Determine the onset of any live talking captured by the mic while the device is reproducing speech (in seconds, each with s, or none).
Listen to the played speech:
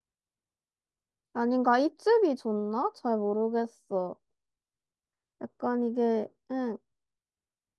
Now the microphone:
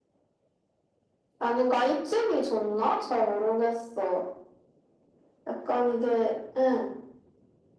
none